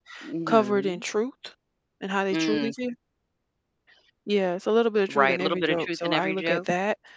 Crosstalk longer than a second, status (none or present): present